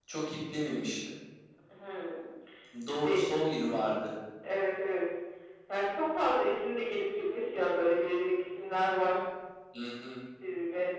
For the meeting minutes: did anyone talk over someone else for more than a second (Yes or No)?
No